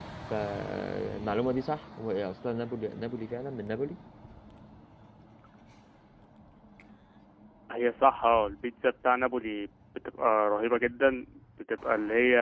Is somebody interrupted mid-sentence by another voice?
No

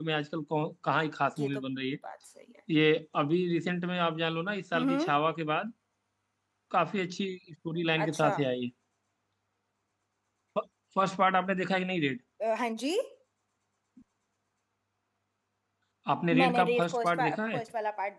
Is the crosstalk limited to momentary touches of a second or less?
No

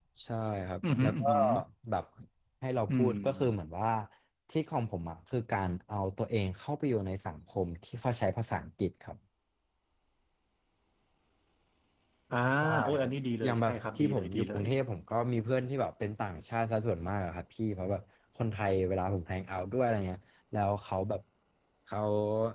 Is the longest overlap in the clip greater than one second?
Yes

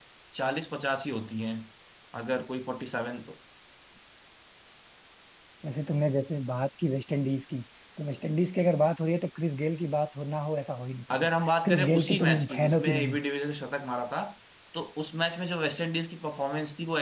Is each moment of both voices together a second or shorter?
No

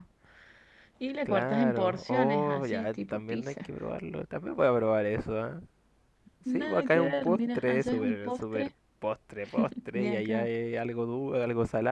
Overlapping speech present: Yes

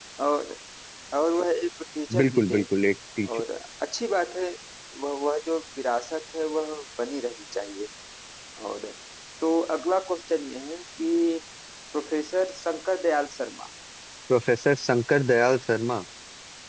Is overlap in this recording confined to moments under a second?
Yes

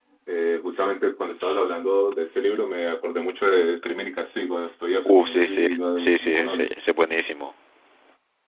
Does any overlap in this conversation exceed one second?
Yes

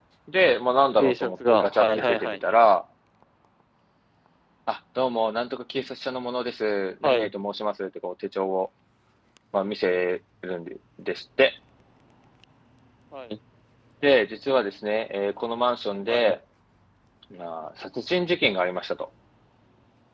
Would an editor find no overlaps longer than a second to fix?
No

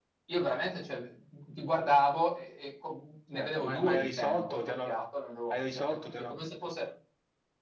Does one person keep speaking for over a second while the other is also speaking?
Yes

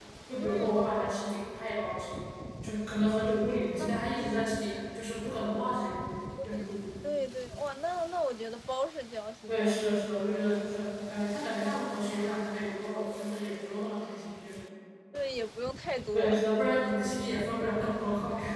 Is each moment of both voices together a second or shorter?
Yes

